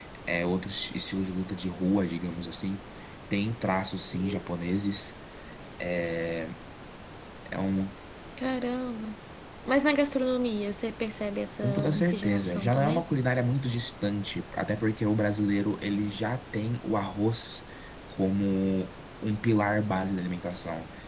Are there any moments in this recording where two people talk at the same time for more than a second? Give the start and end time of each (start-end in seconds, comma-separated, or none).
11.6-13.0